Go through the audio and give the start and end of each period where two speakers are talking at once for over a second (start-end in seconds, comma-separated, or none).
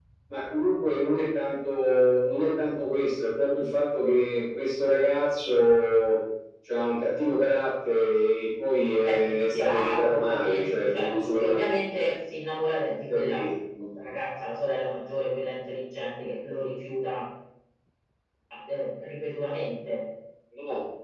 9.0-11.9